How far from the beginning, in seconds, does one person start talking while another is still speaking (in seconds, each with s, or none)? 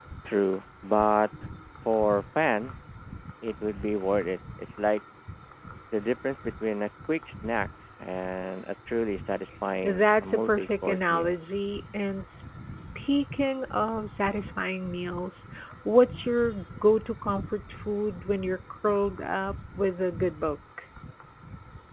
9.8 s